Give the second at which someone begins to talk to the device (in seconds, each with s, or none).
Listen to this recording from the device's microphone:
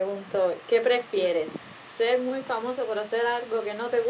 none